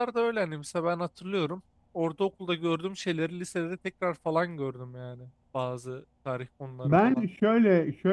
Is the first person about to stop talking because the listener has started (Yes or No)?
Yes